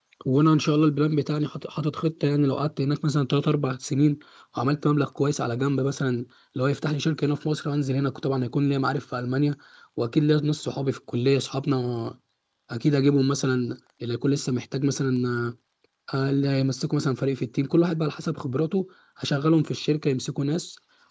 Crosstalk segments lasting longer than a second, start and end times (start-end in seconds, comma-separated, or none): none